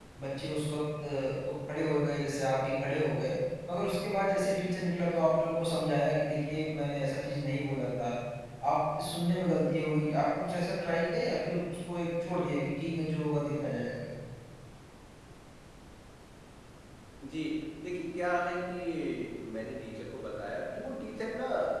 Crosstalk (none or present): none